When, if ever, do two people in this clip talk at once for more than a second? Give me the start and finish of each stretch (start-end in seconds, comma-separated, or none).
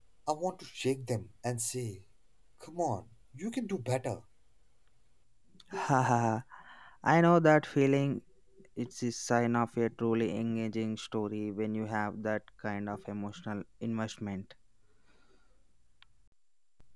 none